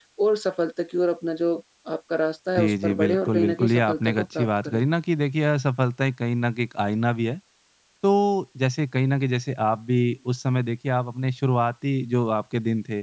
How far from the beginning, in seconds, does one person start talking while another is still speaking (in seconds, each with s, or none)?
2.6 s